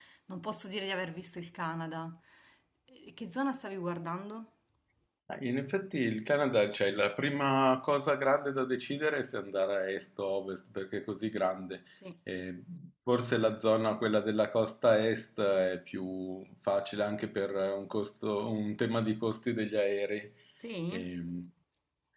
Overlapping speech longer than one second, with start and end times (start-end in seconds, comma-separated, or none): none